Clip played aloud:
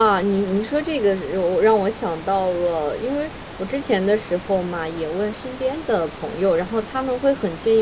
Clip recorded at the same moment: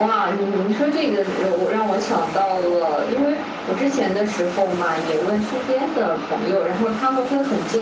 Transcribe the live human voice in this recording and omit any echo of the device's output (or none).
none